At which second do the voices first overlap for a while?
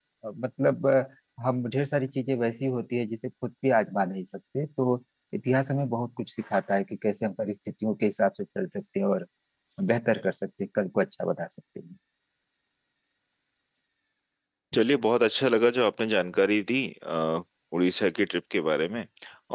none

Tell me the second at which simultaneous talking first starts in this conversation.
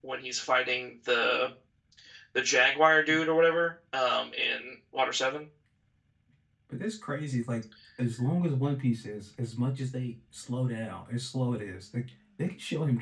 none

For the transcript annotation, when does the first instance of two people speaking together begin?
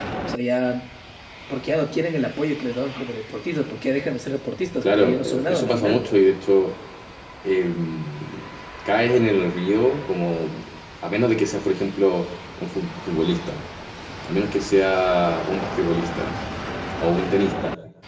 4.8 s

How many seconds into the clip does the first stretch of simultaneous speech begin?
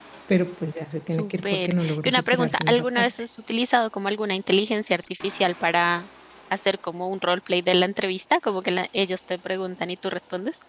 1.1 s

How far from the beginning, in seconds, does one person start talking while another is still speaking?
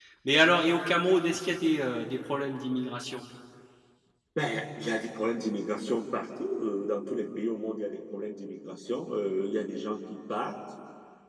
none

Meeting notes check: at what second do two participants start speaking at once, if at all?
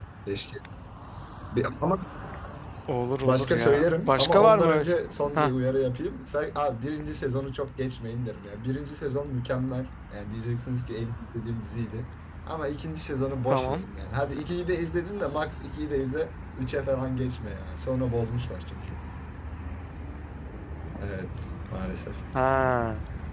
3.2 s

